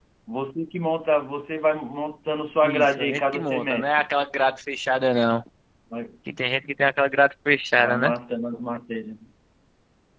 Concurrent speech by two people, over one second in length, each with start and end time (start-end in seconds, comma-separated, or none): 2.6-4.1